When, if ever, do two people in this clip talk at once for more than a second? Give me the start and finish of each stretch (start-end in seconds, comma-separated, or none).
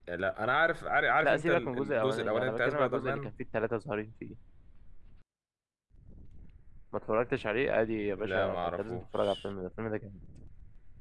1.2-3.3, 8.1-9.3